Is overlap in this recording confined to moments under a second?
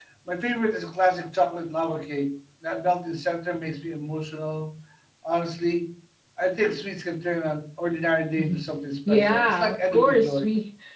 No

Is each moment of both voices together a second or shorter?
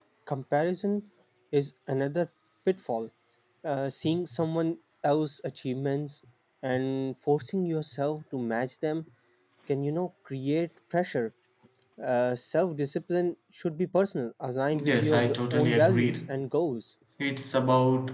No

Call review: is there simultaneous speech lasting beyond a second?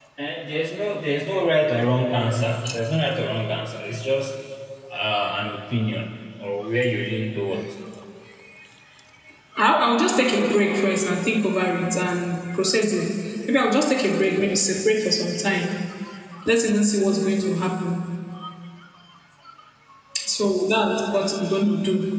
No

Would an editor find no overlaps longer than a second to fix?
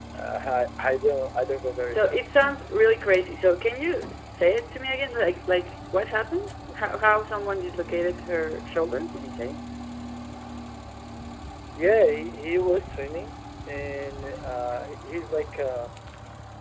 Yes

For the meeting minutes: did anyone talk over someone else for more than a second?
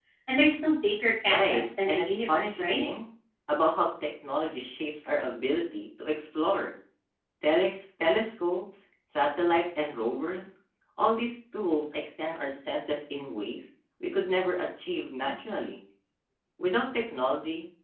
Yes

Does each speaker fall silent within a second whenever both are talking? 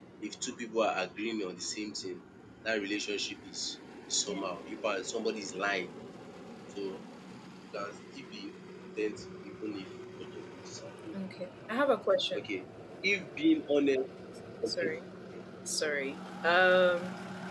Yes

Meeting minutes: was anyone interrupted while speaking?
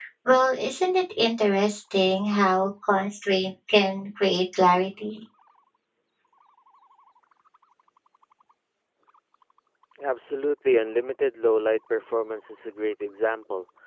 No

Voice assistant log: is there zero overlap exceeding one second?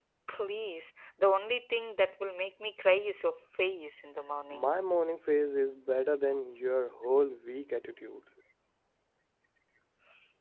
Yes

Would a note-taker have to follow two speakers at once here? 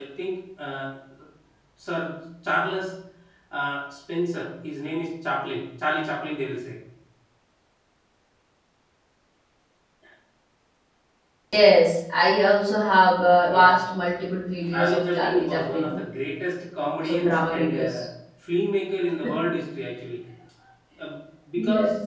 Yes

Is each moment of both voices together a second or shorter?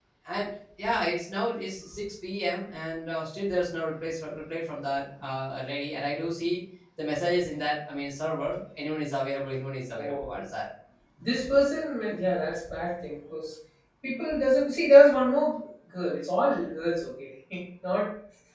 Yes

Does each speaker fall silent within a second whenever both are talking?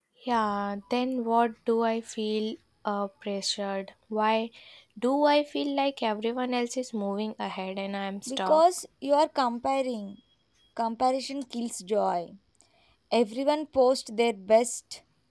Yes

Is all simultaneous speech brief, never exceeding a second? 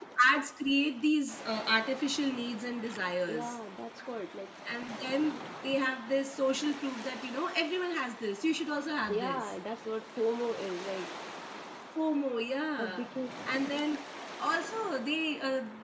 Yes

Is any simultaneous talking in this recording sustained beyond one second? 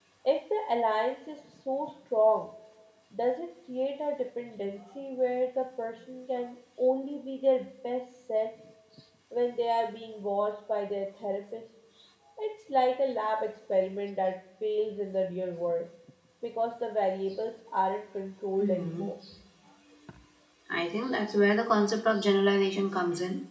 No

